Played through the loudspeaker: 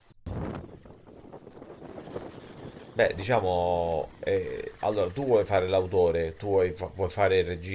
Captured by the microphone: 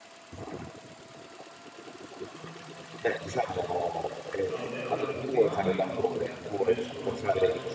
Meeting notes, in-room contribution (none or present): present